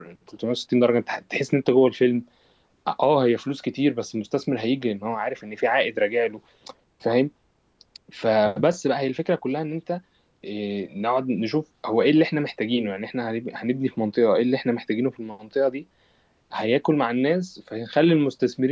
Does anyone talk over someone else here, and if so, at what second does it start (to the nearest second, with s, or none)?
none